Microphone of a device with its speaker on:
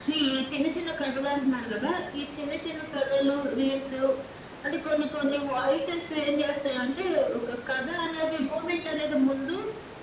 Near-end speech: none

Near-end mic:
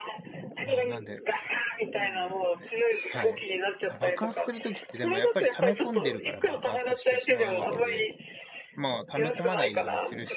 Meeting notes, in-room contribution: present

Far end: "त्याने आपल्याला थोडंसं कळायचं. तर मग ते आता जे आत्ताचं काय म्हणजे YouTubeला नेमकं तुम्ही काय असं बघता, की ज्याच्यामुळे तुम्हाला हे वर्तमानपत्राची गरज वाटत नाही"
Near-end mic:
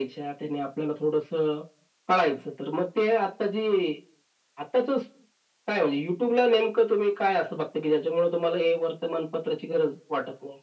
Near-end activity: none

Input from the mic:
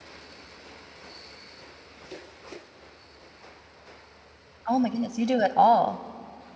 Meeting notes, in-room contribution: present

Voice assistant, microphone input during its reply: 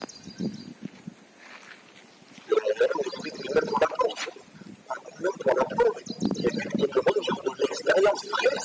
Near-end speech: none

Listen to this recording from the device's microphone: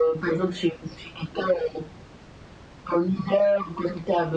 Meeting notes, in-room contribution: none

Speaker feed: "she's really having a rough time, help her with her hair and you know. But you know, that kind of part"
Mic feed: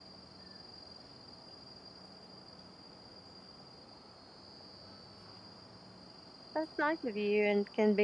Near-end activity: present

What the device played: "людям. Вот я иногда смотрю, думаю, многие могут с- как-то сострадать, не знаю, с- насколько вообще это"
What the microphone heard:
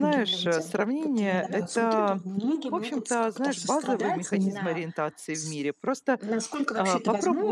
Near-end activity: present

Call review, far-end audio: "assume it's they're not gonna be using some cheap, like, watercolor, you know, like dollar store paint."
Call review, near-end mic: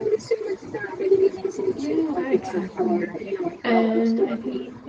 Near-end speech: present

